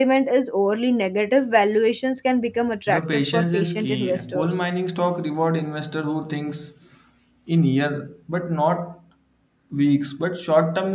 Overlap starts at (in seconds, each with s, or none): 2.9 s